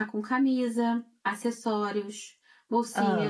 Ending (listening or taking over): listening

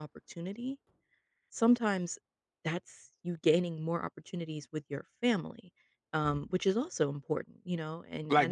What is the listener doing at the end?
taking over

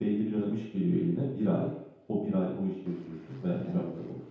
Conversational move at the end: listening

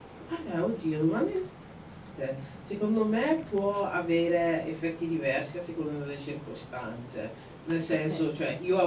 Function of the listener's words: listening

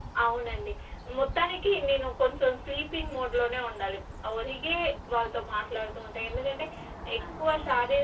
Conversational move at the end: listening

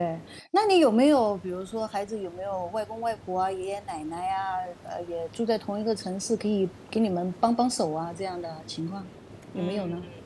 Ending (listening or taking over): taking over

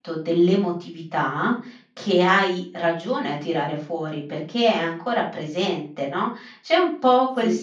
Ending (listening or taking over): listening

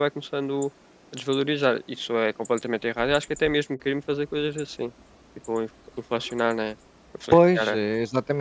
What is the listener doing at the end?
taking over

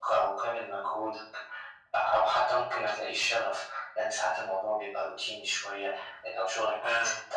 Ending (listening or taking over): listening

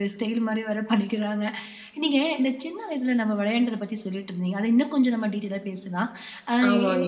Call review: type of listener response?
listening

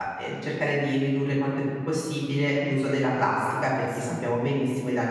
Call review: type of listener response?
listening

